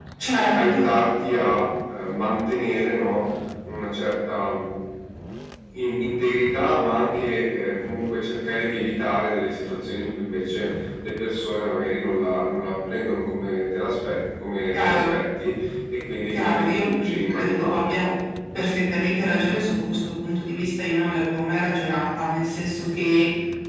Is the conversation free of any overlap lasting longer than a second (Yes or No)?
No